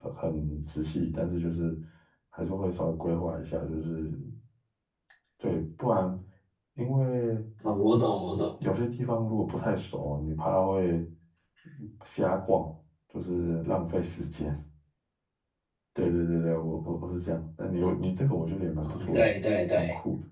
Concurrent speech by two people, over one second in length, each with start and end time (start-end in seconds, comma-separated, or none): none